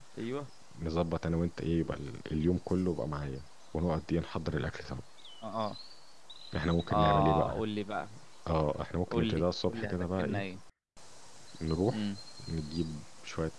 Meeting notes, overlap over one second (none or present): present